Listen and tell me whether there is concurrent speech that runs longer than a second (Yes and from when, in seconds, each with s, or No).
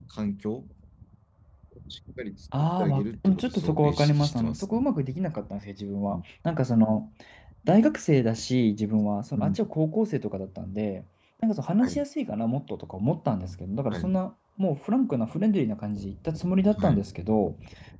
Yes, from 2.8 s